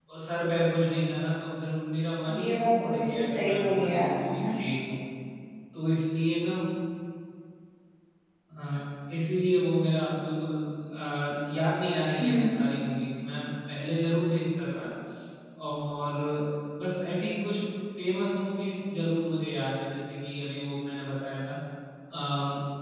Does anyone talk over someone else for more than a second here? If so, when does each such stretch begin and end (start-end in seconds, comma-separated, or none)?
2.4-4.4